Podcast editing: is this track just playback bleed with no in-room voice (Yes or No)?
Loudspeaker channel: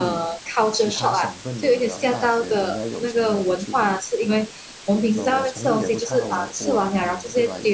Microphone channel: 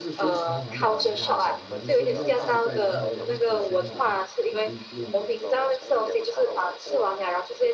No